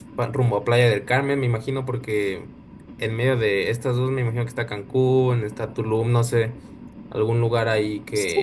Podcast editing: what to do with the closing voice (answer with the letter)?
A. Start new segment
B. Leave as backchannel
A